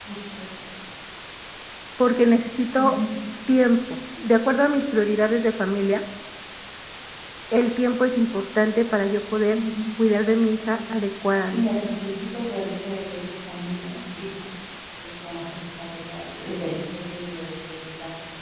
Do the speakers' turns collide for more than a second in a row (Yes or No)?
No